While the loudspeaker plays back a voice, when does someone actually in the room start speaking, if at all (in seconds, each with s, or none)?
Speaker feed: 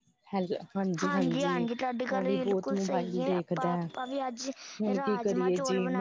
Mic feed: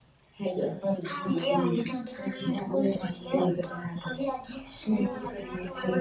4.9 s